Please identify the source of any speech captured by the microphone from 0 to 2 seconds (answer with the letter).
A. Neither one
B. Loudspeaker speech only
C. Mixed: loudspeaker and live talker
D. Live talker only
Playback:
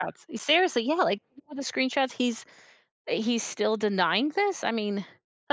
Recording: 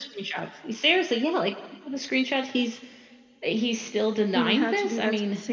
B